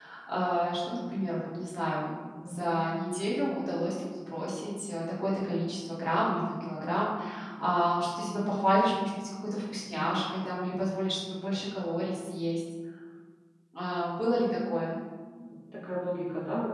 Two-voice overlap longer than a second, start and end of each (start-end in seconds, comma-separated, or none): none